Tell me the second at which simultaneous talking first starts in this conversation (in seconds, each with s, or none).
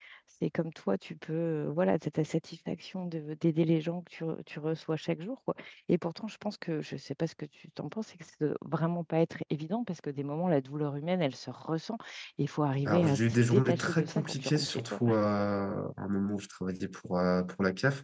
12.9 s